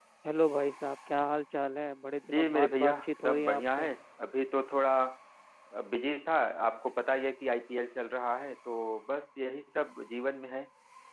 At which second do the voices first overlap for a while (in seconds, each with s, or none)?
2.2 s